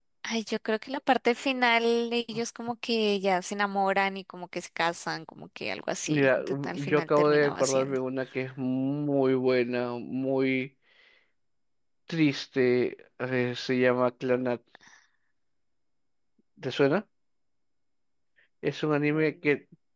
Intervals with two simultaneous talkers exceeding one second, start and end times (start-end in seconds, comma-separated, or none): 6.1-8.0